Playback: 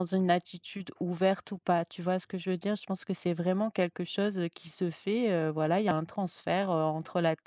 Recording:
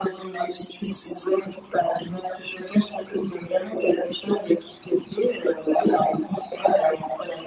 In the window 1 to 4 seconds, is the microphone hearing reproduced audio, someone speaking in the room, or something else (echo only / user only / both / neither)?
echo only